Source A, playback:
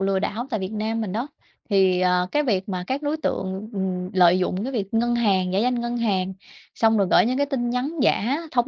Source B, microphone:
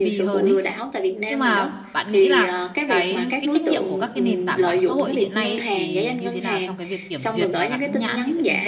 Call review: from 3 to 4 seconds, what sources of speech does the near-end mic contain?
both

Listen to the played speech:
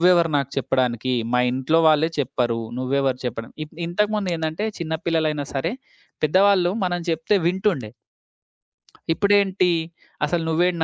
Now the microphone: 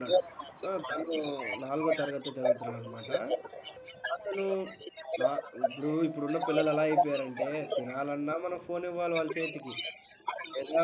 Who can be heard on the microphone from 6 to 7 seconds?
both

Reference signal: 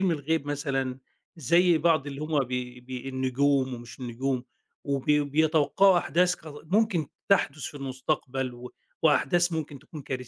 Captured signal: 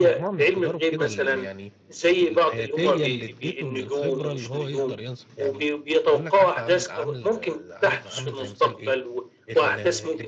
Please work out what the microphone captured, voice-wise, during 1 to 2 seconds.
both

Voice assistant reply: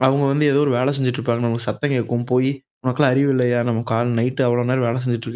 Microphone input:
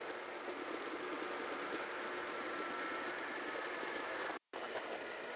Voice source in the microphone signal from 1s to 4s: neither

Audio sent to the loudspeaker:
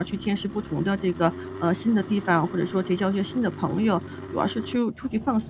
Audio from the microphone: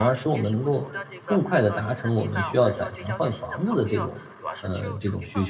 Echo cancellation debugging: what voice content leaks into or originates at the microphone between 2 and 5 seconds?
both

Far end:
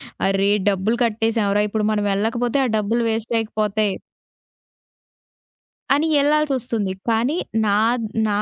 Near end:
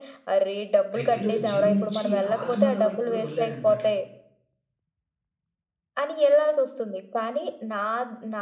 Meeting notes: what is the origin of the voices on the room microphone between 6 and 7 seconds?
echo only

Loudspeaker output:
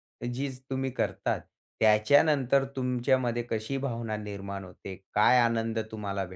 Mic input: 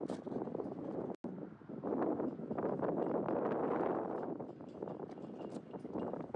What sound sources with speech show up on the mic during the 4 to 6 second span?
neither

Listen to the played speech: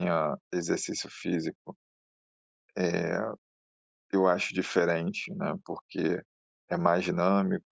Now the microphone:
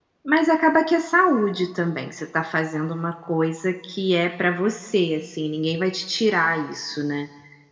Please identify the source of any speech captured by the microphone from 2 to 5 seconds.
user only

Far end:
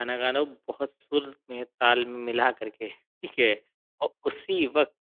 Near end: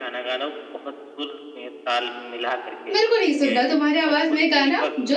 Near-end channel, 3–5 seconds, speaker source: both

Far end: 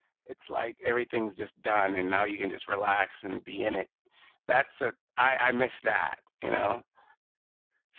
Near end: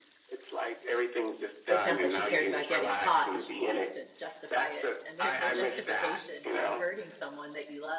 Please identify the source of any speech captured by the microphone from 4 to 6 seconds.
both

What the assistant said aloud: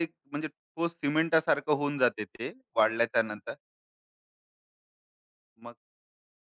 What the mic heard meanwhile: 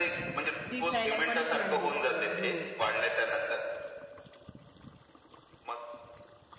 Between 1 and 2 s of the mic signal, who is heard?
both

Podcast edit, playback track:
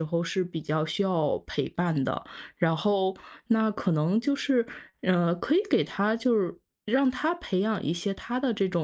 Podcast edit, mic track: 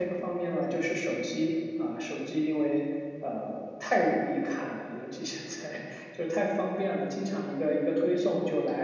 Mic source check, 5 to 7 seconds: user only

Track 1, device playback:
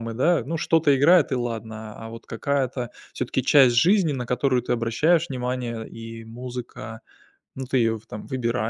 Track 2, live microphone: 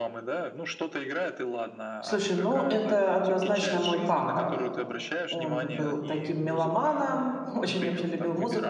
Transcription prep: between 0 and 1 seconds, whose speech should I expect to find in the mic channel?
echo only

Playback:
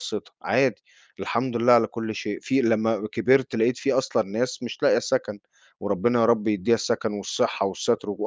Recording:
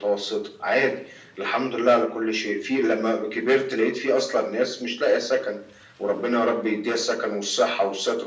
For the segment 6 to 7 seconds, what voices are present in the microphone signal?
echo only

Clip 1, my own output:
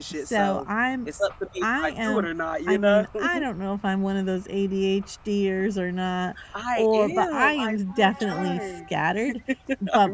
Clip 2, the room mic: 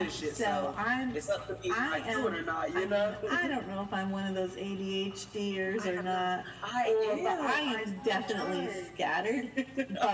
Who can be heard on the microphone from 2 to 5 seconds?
echo only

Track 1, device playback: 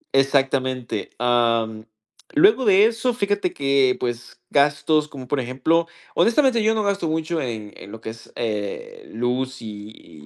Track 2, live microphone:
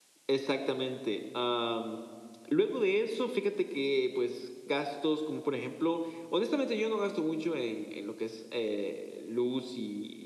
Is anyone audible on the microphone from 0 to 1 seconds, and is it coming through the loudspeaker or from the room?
echo only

